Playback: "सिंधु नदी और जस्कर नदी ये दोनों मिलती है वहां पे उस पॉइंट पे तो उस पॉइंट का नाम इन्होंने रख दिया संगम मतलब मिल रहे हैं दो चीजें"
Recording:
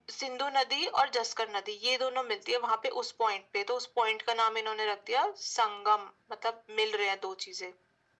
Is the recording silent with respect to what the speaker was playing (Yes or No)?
No